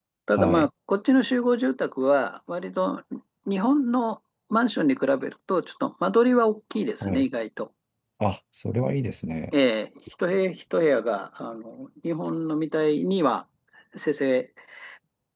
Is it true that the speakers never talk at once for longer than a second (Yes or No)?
Yes